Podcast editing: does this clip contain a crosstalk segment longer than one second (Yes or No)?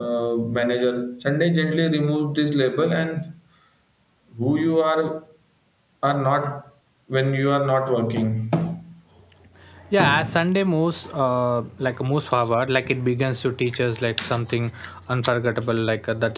No